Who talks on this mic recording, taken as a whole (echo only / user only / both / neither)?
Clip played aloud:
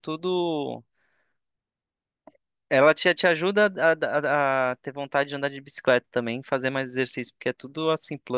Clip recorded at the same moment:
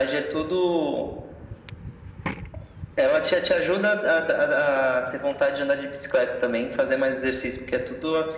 echo only